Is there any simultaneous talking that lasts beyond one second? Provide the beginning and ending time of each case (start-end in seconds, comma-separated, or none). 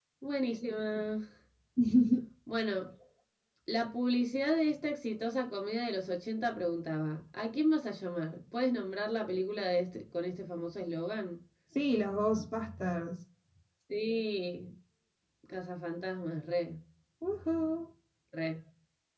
none